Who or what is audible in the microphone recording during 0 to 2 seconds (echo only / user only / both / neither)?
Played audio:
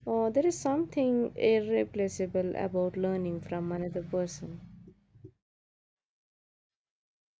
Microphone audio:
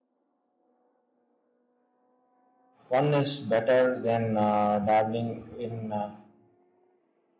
neither